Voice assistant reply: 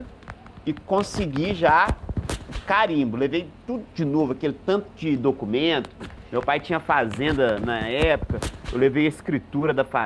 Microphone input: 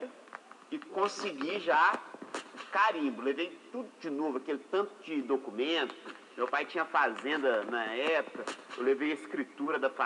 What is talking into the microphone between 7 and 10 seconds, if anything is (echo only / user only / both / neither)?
echo only